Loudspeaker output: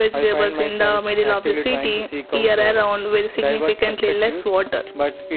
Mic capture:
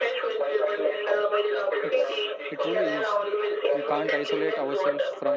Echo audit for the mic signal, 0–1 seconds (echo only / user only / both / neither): echo only